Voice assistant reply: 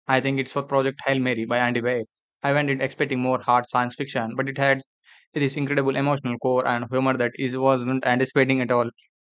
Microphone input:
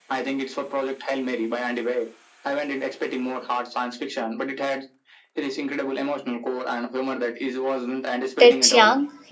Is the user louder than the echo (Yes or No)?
Yes